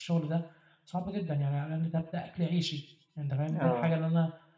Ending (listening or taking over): listening